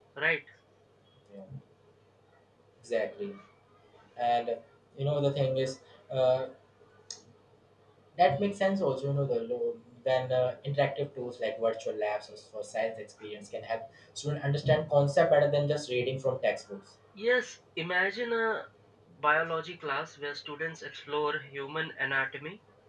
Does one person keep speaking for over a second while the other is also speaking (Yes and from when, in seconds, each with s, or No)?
No